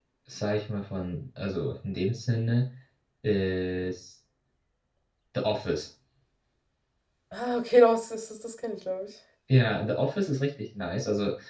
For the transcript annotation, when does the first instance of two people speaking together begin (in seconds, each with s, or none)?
none